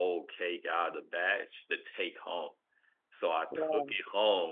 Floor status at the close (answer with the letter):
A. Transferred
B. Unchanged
B